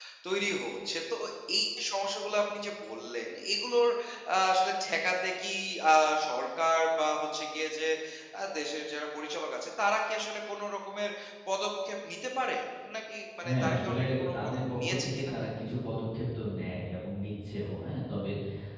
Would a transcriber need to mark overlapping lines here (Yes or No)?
Yes